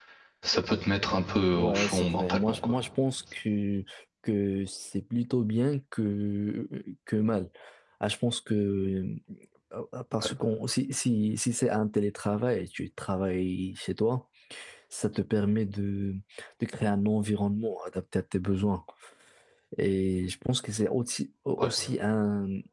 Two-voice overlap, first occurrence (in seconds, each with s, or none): 1.5 s